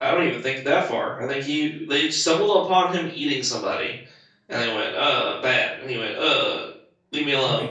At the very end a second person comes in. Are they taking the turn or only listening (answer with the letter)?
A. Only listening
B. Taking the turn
B